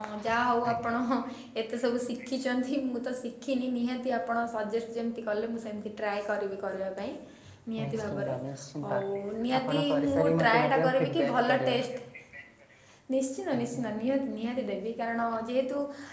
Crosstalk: present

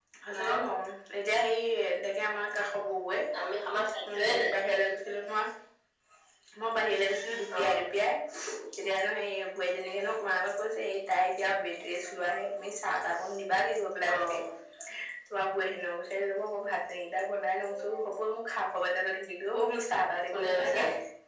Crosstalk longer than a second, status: none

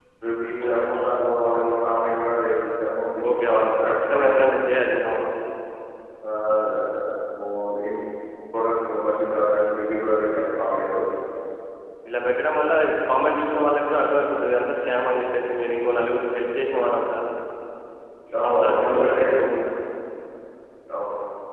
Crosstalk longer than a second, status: present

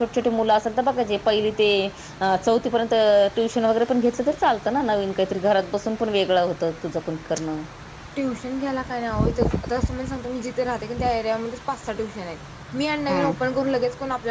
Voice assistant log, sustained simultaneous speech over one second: none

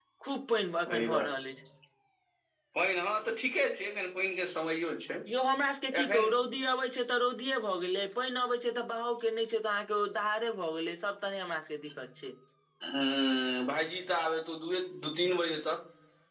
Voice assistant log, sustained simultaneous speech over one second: none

